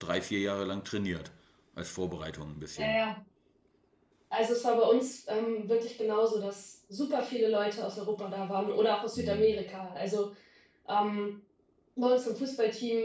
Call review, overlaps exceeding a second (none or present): none